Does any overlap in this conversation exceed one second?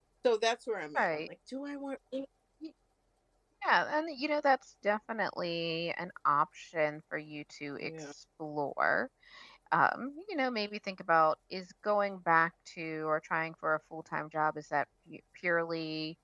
No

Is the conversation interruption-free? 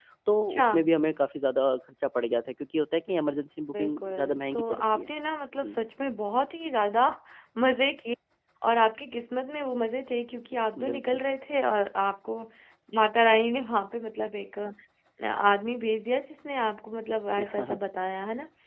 No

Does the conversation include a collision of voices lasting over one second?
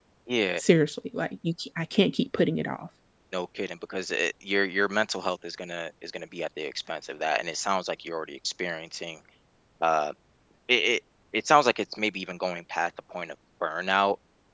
No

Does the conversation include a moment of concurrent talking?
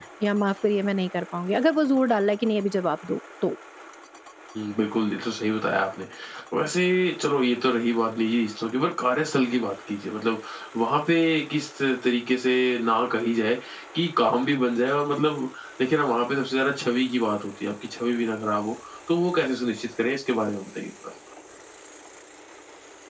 No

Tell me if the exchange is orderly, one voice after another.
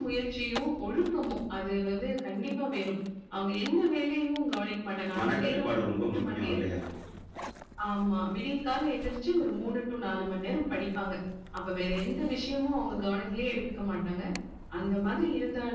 No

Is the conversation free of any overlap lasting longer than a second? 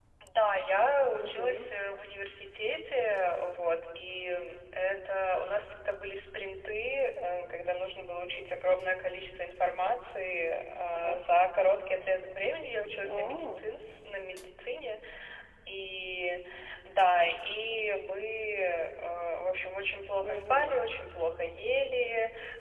Yes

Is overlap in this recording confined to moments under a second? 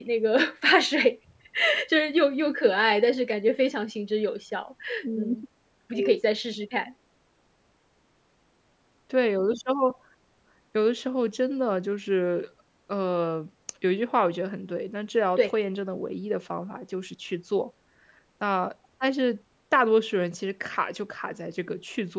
Yes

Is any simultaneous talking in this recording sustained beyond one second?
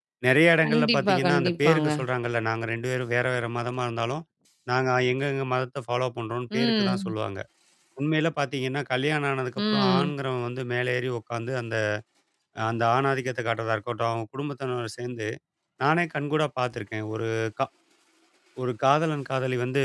Yes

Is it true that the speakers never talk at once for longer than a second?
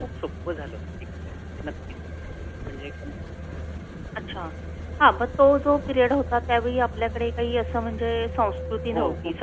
Yes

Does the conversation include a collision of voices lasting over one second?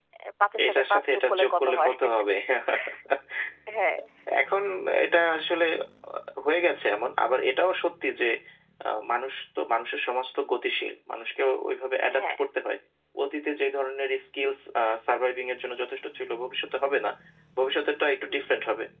Yes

